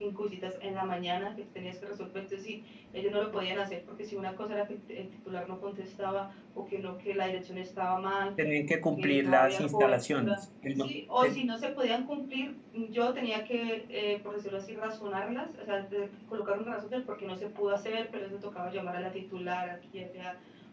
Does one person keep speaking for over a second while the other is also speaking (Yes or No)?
Yes